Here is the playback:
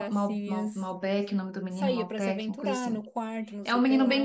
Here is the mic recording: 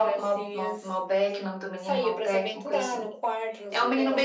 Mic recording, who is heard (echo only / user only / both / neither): echo only